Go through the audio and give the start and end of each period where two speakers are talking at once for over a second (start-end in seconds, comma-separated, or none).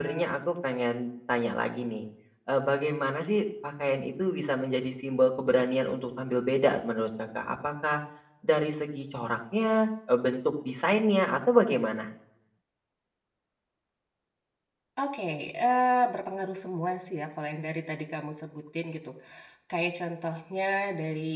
none